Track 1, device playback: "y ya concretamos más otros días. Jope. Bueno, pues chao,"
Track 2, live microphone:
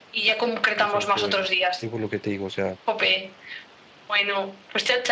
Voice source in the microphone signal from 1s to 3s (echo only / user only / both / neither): both